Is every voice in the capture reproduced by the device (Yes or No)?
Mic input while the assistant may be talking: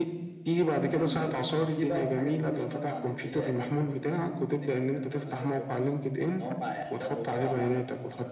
Yes